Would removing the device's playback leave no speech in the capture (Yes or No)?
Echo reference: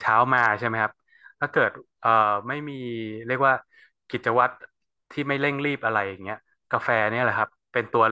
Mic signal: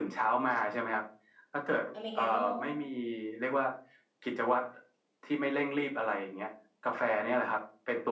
No